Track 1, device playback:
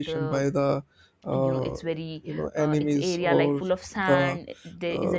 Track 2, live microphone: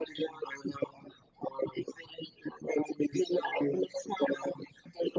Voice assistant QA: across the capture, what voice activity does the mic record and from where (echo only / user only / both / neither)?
echo only